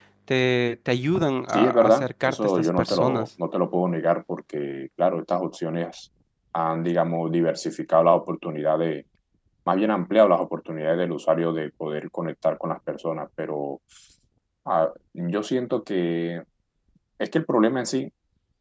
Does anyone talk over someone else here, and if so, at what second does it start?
1.5 s

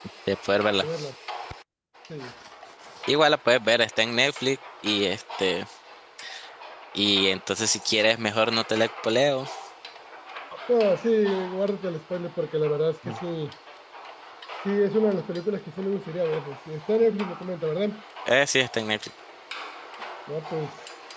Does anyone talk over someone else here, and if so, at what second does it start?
none

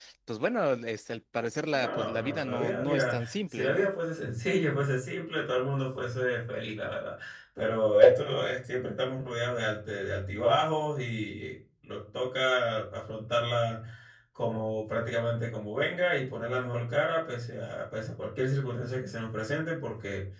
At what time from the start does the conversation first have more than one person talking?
1.7 s

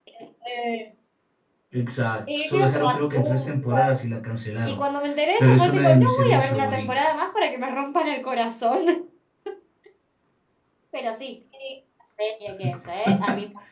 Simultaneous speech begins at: 2.4 s

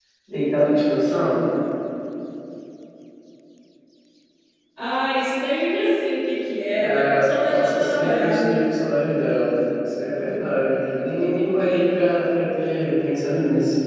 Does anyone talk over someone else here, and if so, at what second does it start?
6.8 s

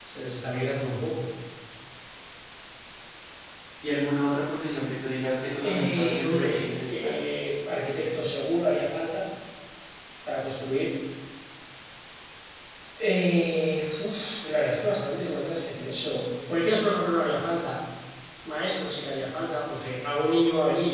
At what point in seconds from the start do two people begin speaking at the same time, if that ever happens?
5.6 s

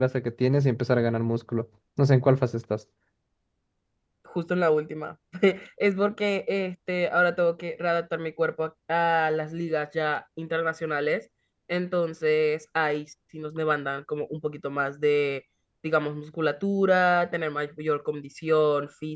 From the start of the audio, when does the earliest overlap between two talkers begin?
none

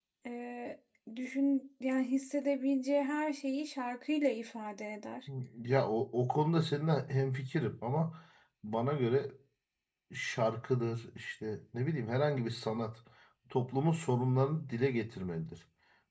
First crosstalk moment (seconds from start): none

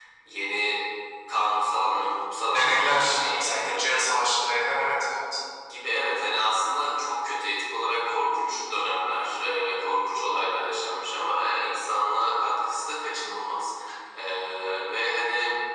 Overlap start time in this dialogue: 2.5 s

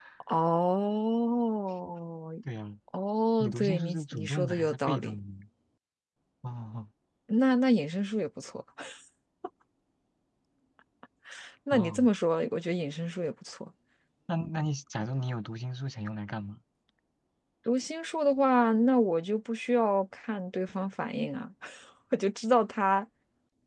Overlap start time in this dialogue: 3.4 s

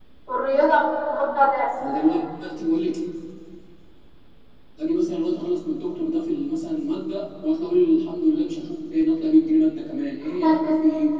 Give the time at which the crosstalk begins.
none

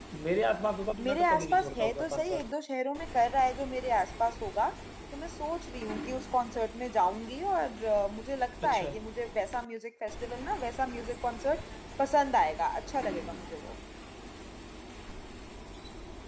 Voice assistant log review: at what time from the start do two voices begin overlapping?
1.0 s

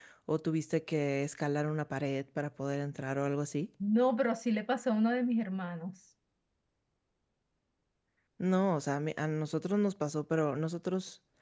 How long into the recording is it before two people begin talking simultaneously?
none

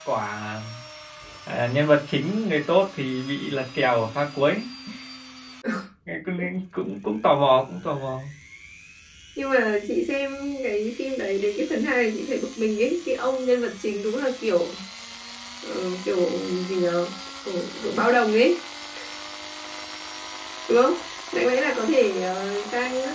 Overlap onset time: none

